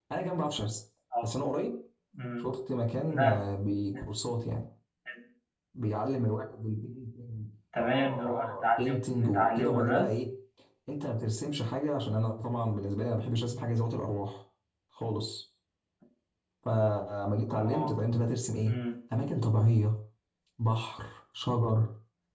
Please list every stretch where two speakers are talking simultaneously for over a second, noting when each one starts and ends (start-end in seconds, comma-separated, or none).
7.8-10.1